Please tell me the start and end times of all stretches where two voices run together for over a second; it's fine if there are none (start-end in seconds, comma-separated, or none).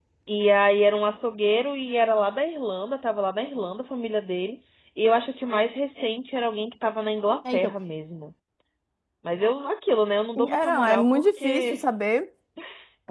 10.4-11.8